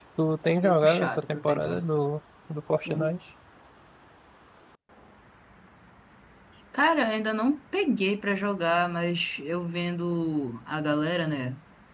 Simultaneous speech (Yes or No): Yes